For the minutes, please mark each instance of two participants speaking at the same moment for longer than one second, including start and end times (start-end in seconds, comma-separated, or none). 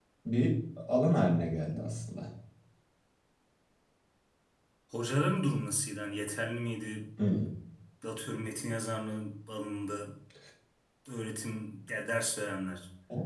none